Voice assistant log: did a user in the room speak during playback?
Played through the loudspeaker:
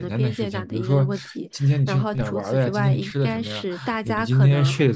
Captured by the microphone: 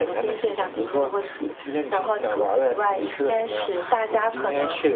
No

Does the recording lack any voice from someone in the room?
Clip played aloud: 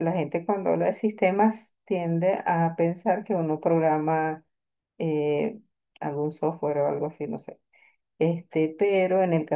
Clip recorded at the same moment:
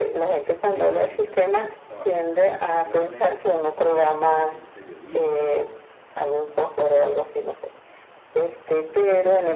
No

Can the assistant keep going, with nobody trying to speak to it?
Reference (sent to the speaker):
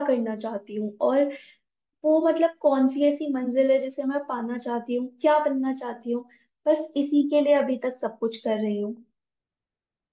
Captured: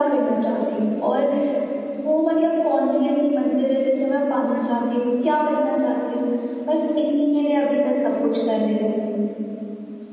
Yes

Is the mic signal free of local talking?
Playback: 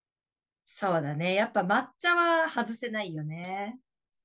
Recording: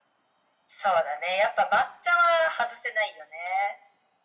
Yes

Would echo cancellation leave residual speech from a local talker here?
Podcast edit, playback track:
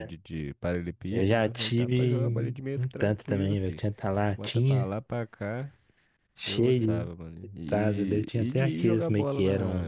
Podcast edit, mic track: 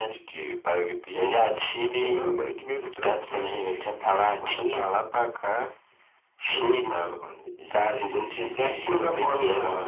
No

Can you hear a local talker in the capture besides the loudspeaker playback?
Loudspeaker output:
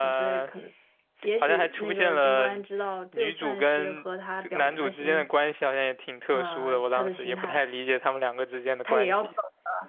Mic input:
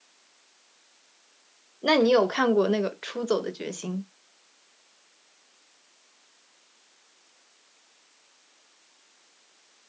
Yes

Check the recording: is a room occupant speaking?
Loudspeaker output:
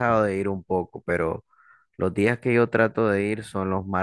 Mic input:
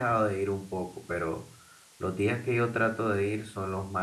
No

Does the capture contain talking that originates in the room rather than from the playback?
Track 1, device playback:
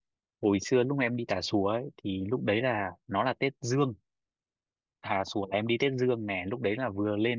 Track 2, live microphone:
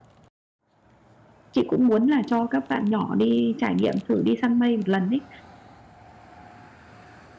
Yes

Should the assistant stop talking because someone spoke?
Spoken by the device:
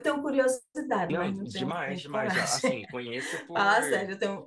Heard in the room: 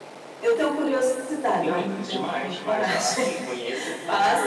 No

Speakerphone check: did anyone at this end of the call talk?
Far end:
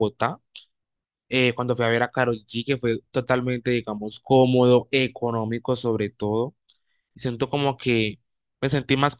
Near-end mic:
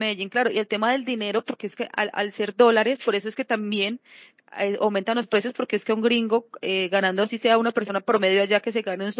Yes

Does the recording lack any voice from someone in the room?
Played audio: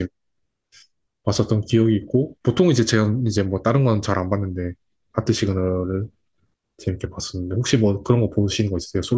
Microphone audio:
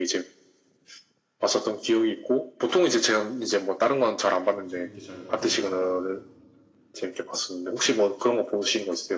No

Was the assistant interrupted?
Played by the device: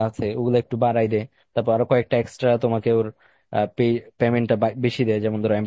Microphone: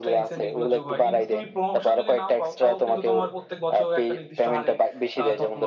Yes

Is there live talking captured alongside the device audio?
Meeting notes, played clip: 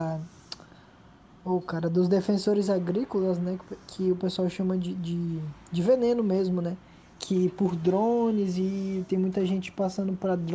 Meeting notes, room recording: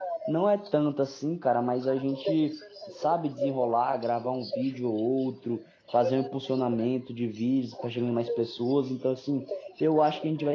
Yes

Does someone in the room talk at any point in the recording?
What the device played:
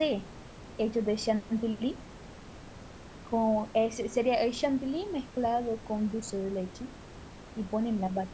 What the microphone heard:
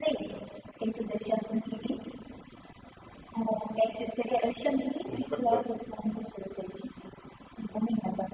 Yes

